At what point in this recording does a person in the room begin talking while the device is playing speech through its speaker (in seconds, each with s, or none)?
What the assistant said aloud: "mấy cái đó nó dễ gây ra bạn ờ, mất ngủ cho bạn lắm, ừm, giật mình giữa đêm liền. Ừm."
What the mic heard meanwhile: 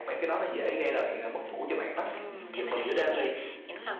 2.1 s